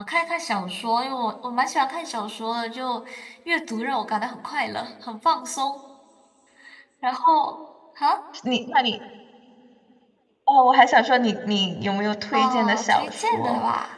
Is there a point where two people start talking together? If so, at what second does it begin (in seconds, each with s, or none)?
12.3 s